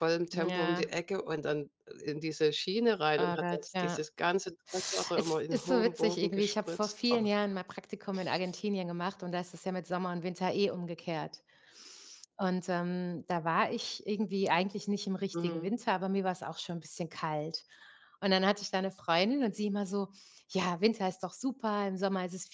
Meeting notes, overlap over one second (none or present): present